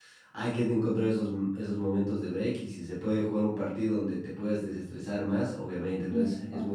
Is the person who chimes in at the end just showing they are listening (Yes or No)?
Yes